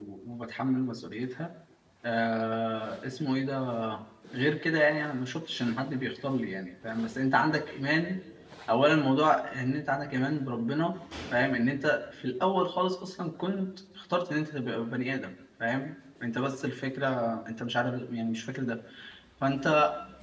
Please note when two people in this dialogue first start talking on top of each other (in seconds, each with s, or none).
none